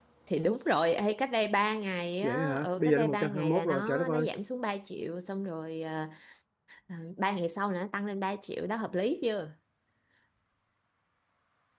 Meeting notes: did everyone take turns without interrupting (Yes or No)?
No